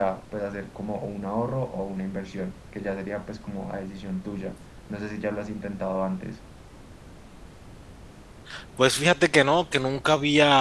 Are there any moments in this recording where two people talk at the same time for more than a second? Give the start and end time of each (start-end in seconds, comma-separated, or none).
none